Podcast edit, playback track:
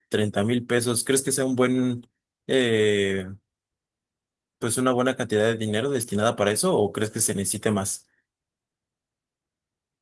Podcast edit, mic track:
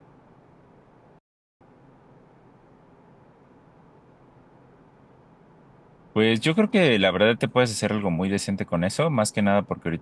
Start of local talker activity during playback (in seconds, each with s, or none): 6.1 s